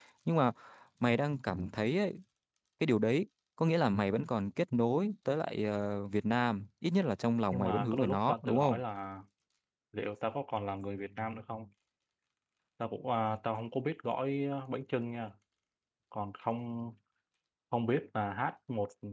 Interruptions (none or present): present